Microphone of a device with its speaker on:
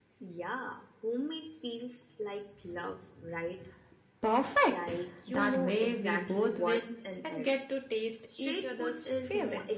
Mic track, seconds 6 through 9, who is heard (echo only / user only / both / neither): echo only